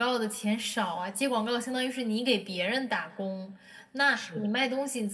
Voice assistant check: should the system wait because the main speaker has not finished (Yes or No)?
Yes